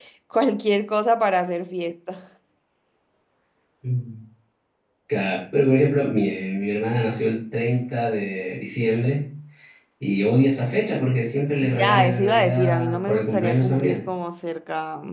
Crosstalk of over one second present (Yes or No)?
Yes